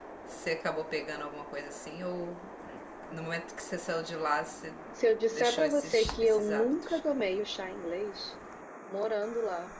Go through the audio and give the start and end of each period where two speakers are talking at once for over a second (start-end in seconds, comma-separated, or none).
5.3-7.0